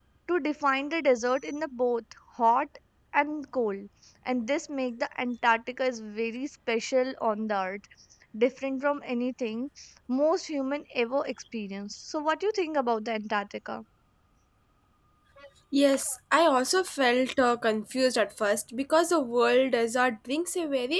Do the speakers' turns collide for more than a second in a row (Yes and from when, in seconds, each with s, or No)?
No